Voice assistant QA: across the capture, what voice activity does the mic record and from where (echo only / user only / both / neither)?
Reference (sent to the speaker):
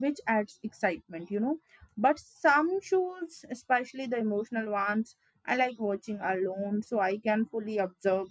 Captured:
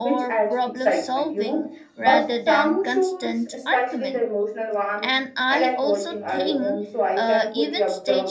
both